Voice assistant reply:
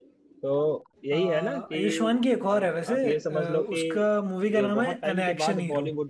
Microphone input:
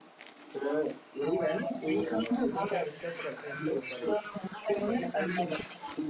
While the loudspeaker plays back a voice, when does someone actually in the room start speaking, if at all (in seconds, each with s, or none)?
2.0 s